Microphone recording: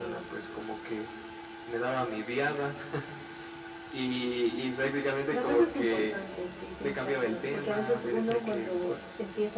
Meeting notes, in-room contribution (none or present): none